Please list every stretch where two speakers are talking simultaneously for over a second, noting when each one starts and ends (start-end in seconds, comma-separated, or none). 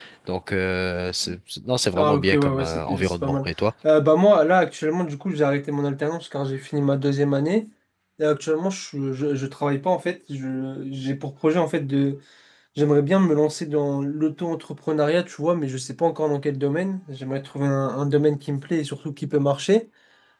1.9-3.5